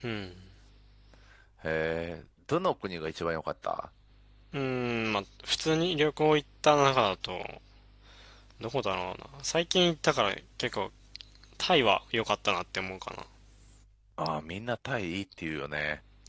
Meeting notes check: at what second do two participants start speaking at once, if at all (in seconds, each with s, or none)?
none